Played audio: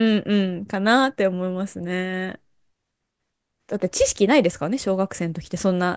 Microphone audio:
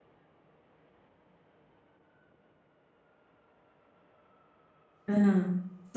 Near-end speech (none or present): present